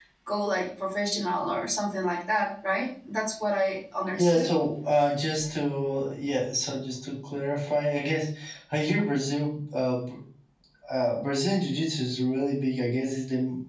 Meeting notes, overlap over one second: none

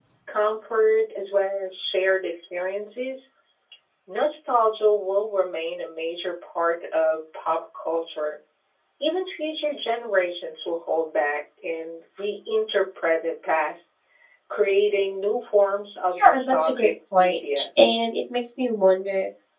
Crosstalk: present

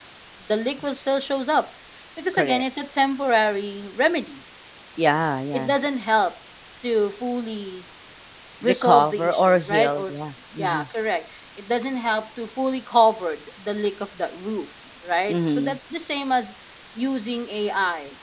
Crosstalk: present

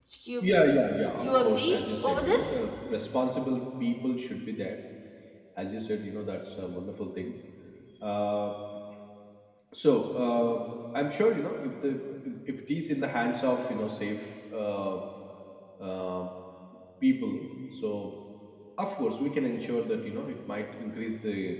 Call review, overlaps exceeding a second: present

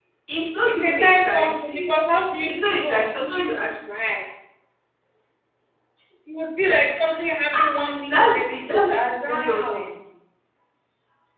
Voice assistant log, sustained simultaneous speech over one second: present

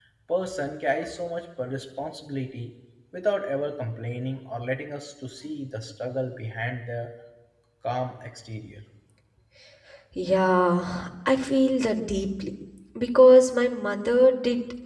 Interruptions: none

